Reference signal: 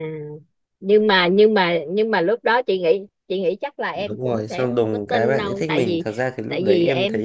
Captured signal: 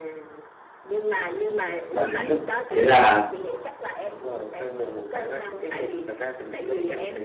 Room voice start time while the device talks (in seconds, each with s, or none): 1.9 s